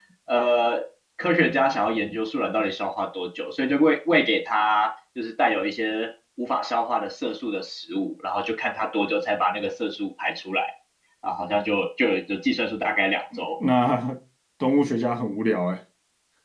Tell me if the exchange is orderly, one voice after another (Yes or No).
Yes